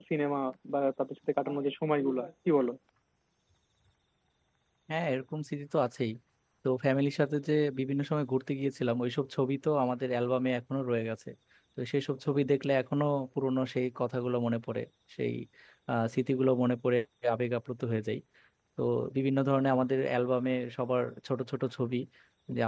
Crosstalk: none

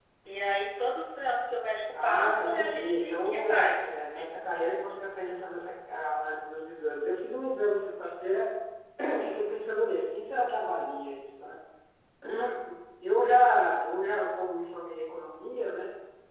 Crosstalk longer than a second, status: present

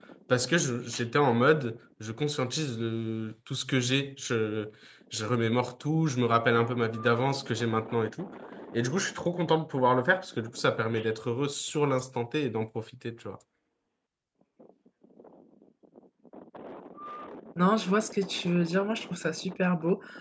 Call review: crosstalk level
none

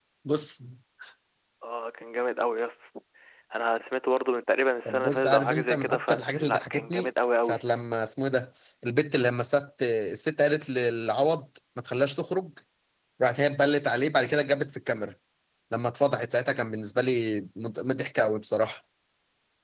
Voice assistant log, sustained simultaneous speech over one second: present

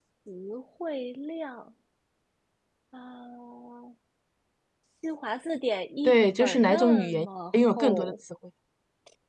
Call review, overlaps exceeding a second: present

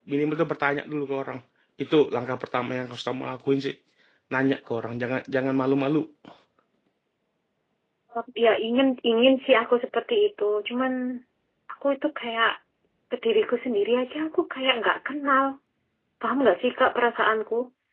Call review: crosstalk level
none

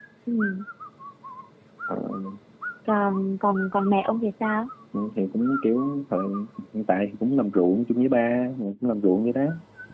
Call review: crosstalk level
none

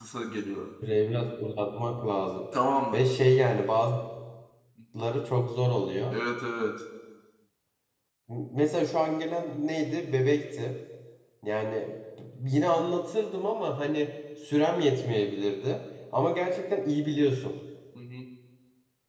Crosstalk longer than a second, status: none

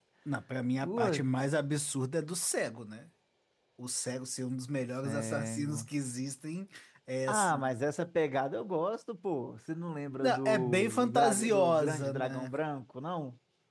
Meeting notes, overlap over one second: present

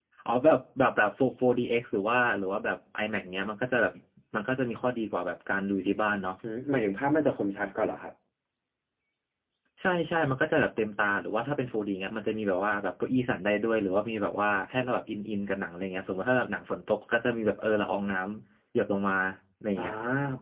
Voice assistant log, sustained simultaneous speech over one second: none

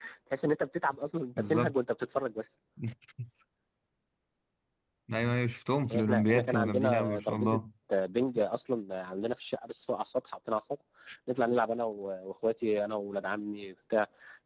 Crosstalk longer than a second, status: present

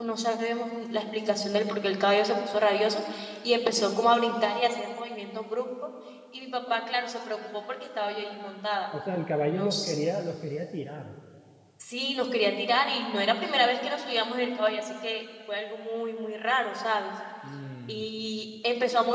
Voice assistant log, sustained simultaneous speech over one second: none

